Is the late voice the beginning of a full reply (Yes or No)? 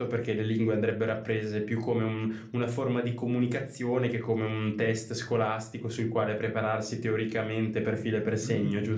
Yes